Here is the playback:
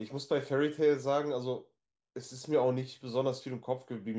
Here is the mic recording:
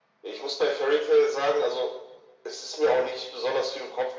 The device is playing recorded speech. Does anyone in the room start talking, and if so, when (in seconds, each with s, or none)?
none